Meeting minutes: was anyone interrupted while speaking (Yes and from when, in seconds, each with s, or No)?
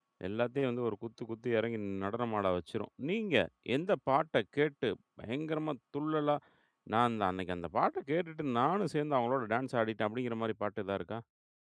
No